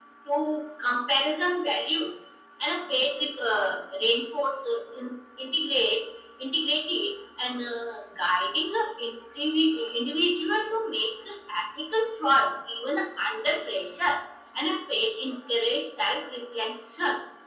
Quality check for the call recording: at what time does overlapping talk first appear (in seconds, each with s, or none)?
none